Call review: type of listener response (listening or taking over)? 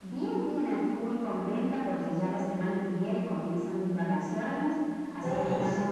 listening